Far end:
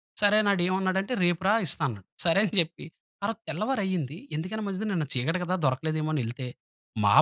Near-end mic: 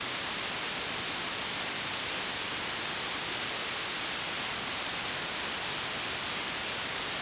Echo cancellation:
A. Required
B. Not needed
B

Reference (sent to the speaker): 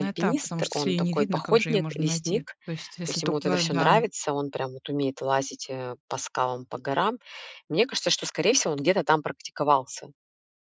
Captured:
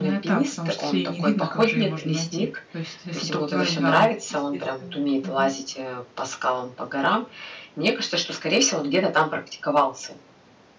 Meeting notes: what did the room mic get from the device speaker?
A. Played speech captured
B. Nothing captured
A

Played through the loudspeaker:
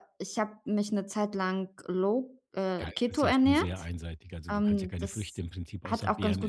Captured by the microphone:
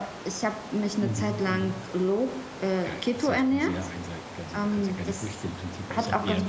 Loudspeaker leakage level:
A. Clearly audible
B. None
A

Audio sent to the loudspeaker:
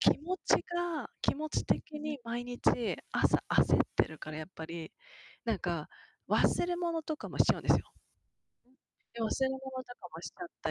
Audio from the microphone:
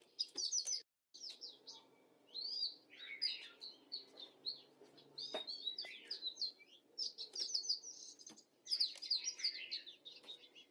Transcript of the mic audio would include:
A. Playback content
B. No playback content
B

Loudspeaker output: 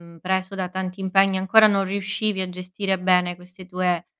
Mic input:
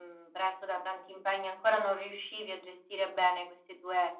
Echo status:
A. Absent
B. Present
B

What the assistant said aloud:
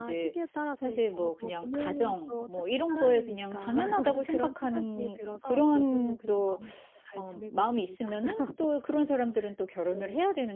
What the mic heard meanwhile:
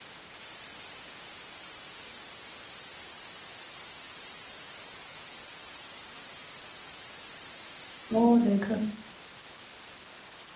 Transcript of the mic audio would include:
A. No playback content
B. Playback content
A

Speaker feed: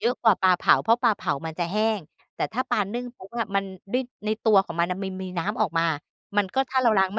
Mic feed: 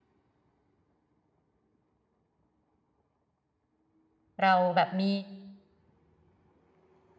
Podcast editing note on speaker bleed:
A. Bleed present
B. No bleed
B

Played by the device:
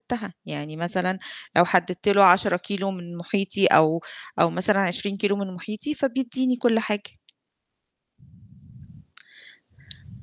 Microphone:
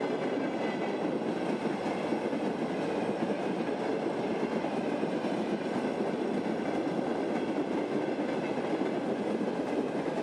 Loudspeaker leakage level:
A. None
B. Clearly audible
A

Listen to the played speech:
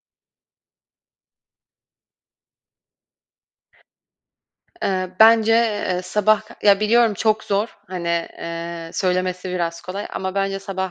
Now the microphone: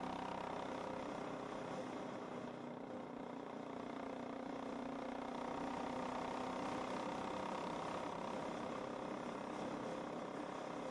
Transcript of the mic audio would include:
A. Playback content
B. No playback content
B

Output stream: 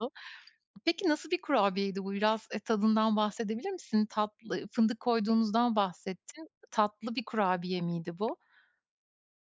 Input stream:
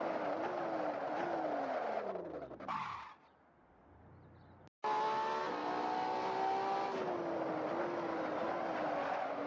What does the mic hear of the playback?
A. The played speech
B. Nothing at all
B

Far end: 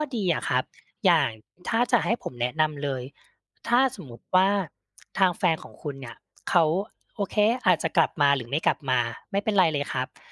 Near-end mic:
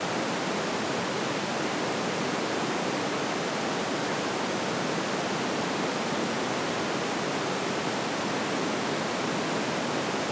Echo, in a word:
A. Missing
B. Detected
A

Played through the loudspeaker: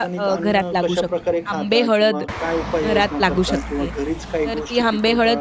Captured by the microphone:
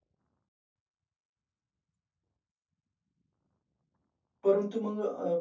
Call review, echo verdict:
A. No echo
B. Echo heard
A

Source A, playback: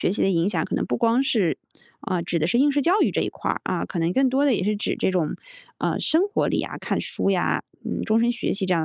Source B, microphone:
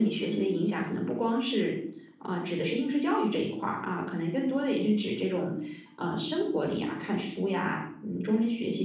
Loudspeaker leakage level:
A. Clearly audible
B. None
A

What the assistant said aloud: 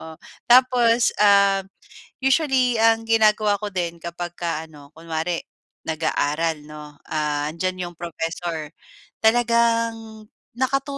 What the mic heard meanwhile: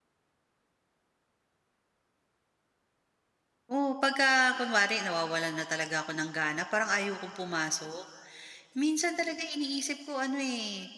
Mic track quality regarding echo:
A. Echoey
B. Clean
B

